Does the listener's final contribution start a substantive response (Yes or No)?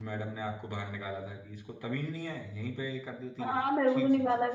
Yes